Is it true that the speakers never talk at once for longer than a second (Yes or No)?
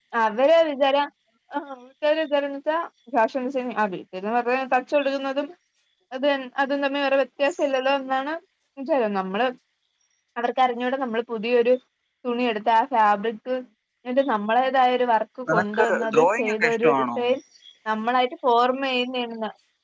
No